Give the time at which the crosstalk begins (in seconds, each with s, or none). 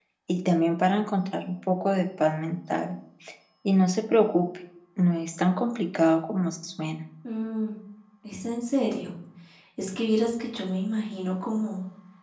none